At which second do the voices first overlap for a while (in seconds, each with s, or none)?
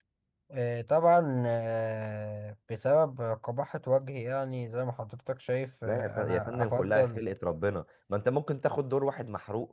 5.9 s